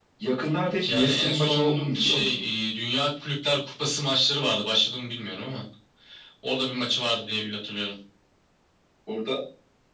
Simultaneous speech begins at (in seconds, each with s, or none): 0.8 s